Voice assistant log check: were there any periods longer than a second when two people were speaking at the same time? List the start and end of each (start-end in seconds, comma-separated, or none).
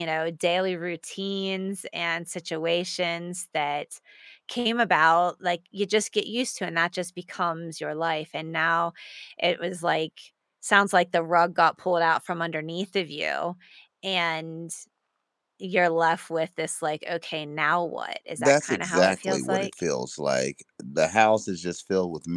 18.4-19.7